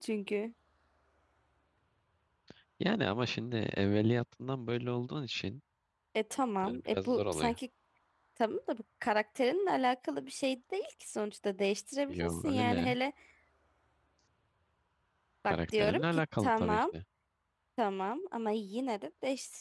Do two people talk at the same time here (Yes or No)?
Yes